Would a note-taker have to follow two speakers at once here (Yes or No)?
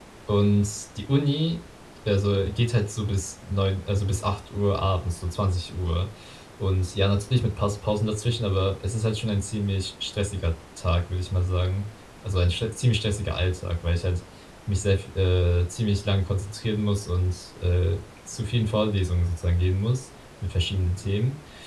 No